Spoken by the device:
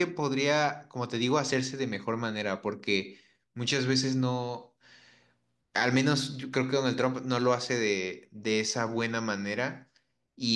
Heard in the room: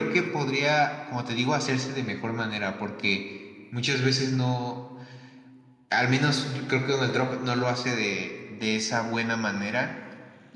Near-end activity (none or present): none